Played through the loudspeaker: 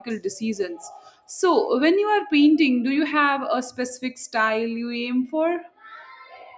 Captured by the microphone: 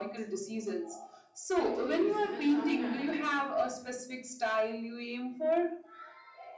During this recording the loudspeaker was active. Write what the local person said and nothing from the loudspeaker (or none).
It is. And sometimes